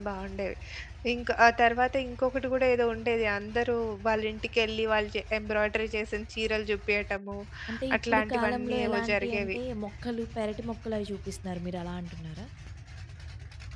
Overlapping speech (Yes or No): Yes